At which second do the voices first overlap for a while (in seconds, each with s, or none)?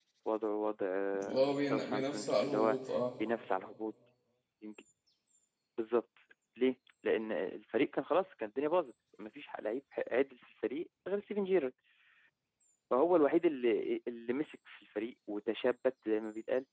1.2 s